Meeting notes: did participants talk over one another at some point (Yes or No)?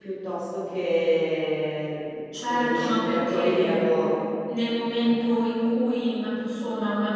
Yes